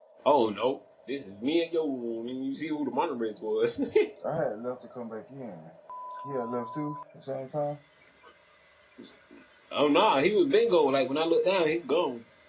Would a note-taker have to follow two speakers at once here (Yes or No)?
No